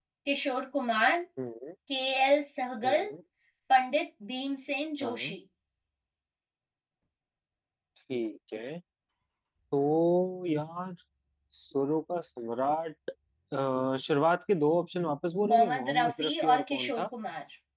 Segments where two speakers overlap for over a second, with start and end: 15.5-17.1

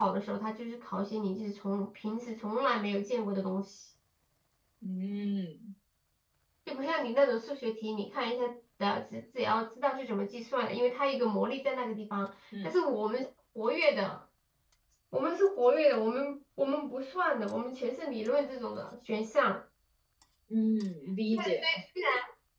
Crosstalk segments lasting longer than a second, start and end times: none

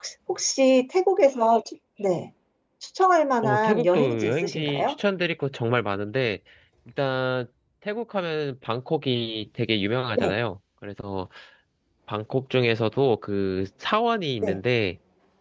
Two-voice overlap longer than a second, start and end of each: 3.4-5.0

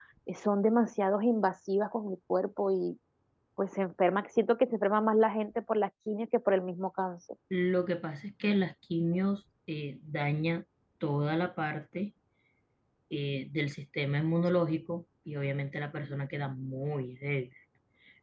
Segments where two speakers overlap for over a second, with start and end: none

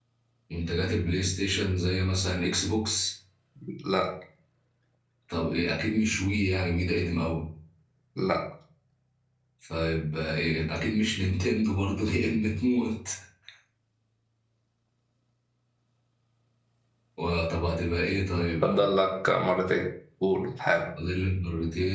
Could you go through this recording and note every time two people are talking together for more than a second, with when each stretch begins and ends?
none

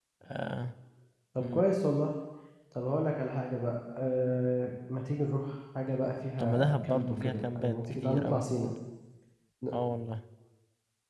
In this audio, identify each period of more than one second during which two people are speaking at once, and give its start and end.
6.4-8.4

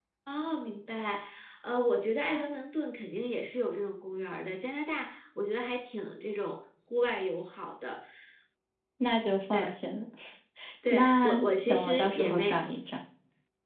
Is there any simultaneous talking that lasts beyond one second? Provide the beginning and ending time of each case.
10.9-12.6

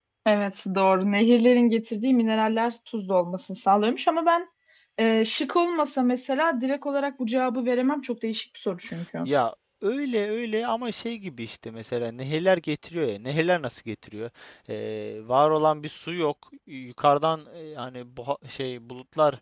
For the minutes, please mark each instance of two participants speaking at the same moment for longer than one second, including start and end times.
none

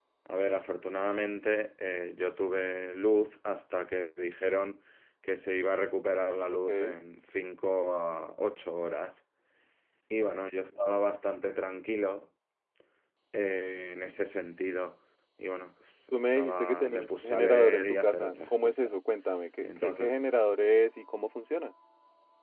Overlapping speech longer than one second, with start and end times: 16.1-18.9

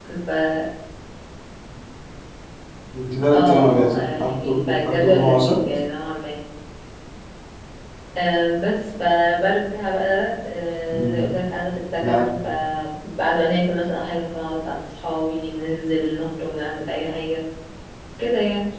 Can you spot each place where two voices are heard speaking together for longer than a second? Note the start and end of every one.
3.3-5.6

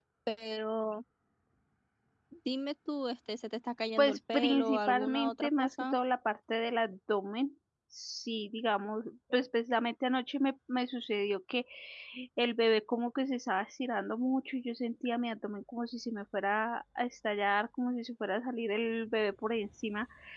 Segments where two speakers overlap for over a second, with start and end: 4.0-6.0

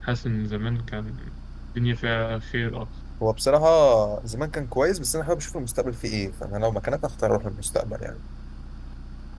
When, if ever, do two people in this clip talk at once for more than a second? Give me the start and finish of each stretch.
none

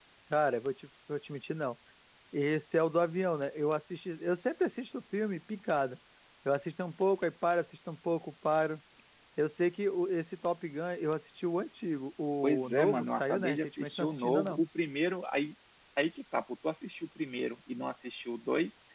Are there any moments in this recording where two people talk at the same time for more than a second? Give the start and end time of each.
12.4-14.6

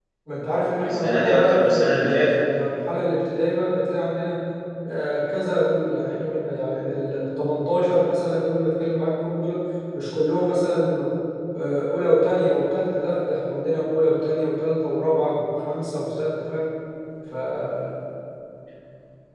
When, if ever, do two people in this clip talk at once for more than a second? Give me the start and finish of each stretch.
0.9-2.4

